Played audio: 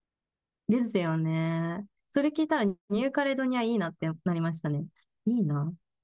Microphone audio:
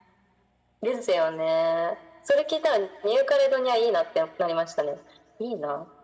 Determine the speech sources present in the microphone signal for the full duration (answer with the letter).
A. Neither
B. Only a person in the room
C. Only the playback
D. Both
C